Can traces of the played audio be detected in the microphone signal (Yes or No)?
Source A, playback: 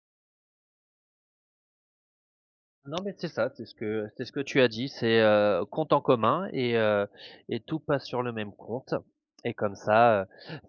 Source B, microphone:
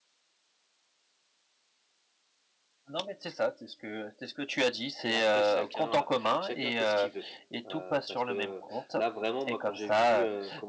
Yes